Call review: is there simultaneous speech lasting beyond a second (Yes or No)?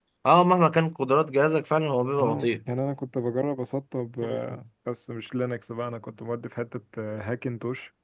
No